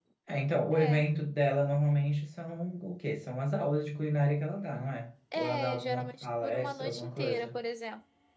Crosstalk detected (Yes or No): Yes